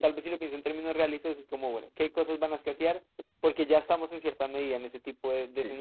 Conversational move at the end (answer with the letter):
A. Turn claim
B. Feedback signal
B